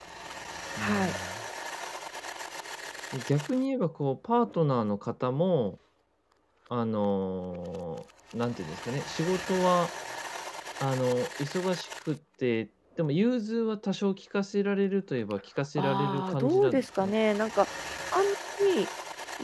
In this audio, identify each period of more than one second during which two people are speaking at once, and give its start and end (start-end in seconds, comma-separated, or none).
15.8-17.1